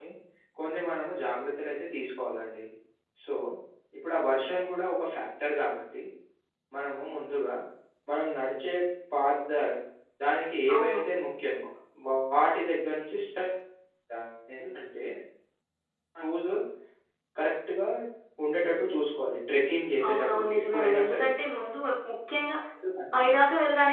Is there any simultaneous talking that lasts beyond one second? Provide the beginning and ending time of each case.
20.1-21.3

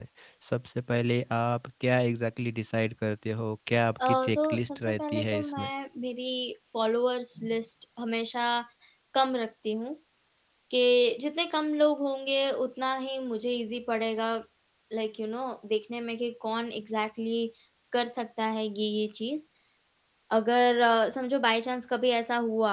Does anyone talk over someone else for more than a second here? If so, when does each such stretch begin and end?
4.1-5.7

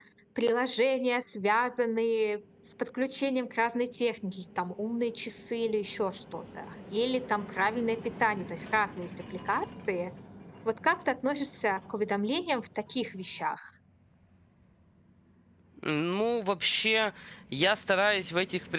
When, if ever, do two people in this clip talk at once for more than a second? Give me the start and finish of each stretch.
none

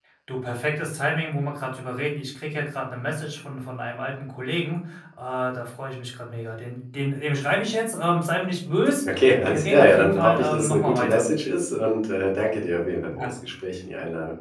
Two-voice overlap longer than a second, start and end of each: 9.5-11.2

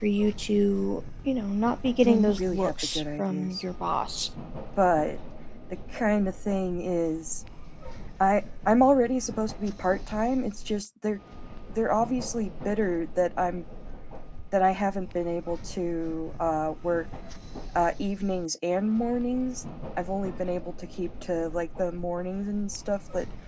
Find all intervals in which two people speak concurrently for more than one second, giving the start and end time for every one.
2.0-3.6

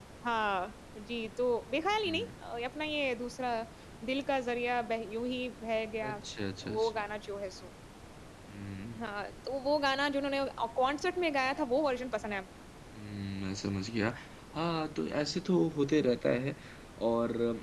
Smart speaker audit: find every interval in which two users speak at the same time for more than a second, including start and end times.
none

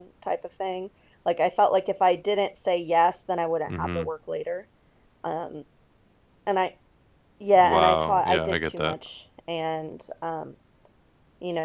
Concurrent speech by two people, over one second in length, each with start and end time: 7.6-8.9

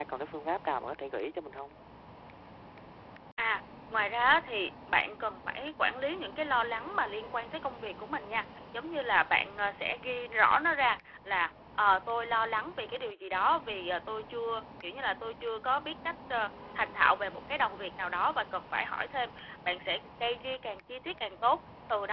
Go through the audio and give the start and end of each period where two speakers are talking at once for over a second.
none

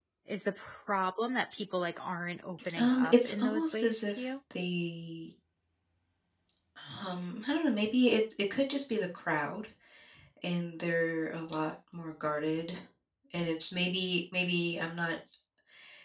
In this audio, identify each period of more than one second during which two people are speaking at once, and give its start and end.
2.8-4.3

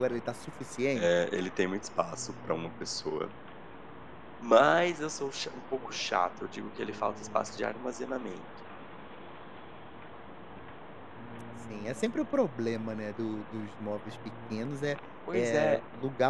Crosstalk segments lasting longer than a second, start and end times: none

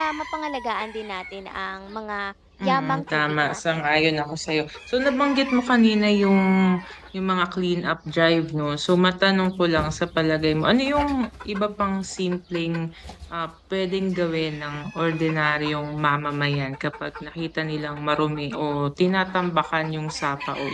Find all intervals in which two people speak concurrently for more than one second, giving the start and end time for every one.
2.6-3.9

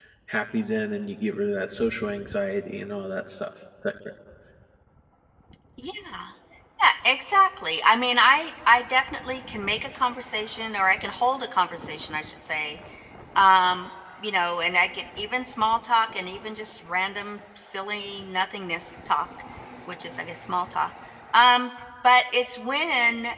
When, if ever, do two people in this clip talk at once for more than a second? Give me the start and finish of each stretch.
none

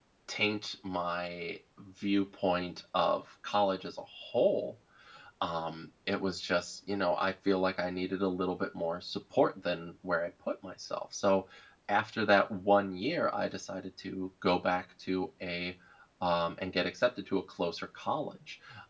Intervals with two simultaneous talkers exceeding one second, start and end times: none

